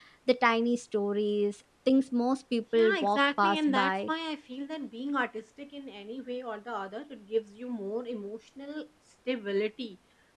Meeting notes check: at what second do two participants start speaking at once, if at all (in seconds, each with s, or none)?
2.8 s